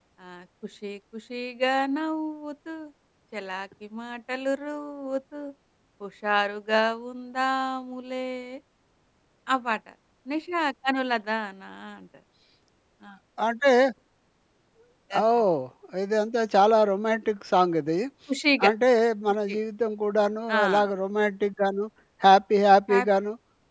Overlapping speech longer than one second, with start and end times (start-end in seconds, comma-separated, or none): none